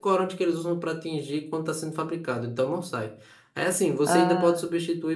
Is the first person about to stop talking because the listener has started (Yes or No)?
No